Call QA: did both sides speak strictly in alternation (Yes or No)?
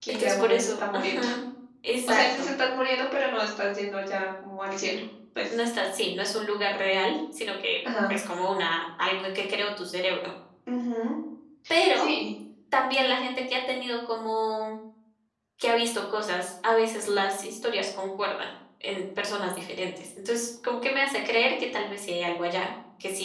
No